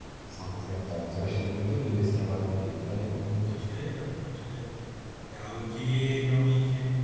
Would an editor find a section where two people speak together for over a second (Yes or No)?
No